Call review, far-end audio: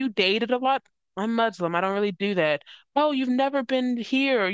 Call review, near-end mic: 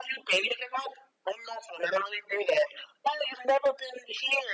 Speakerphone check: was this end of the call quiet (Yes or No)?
Yes